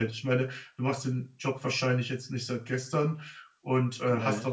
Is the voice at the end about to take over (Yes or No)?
No